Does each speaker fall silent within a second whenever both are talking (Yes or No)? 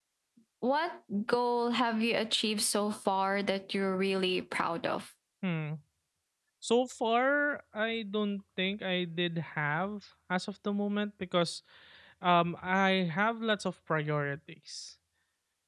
Yes